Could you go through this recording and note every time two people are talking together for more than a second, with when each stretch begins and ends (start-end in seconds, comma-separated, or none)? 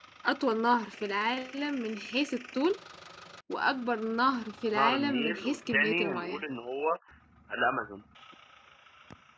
4.8-6.4